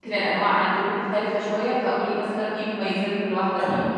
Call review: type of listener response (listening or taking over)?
taking over